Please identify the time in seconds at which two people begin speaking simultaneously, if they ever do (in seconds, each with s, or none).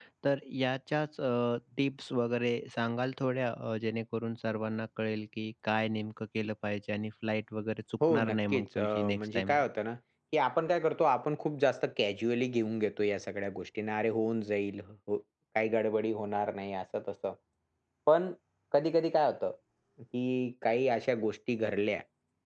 8.0 s